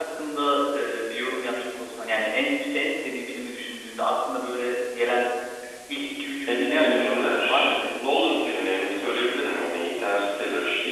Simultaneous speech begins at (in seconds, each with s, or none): 6.5 s